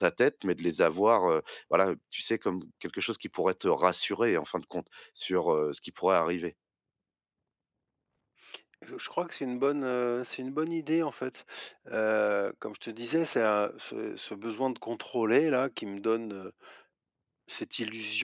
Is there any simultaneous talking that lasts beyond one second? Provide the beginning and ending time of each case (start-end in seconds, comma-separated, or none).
none